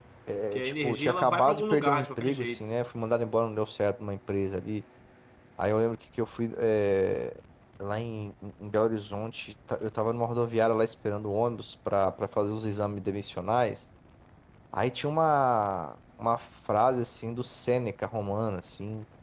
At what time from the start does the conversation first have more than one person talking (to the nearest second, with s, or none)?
1 s